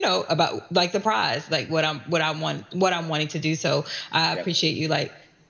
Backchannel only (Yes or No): Yes